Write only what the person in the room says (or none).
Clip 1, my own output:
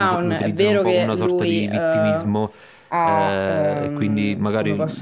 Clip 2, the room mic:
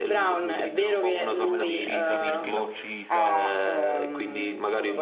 come l'ha uccisa, perché l'ha uccisa